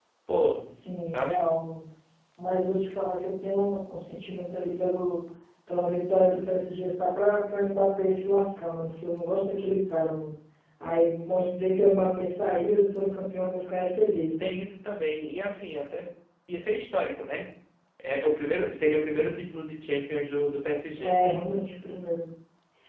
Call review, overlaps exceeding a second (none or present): none